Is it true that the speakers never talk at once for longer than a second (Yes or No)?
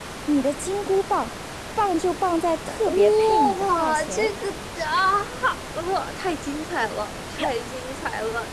No